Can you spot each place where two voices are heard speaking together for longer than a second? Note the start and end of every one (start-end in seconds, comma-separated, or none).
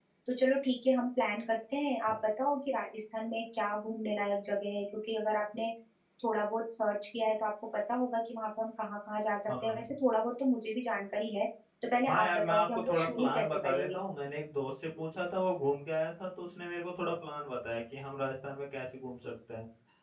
12.1-14.0